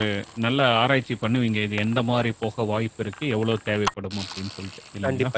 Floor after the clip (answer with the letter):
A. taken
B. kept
A